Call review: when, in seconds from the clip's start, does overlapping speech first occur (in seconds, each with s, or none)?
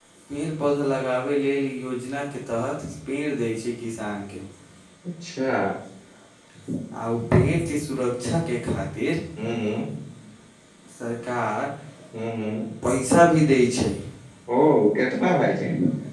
none